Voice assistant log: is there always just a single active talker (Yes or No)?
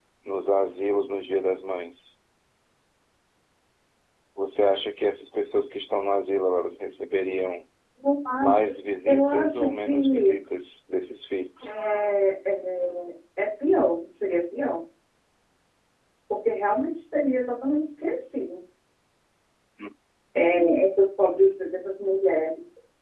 No